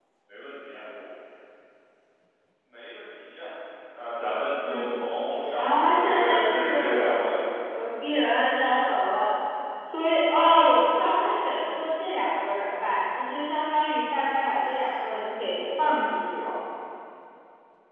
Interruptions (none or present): present